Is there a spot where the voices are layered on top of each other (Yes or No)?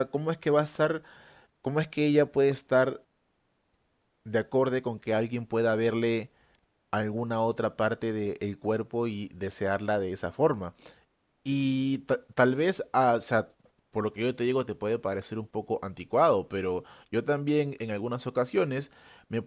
No